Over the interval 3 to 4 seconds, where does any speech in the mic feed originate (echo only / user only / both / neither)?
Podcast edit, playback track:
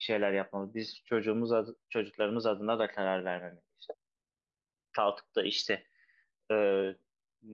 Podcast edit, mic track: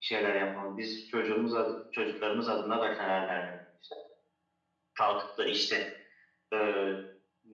echo only